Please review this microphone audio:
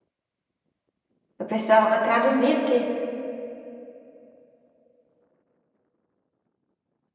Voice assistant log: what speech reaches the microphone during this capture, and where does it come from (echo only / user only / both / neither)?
user only